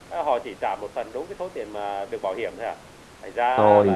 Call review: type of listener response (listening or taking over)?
taking over